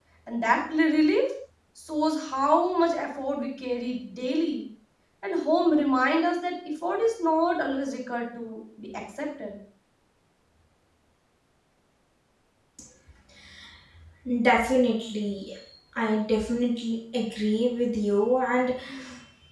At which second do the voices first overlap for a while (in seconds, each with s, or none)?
none